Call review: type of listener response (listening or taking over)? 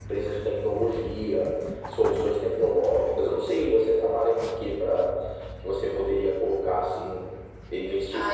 taking over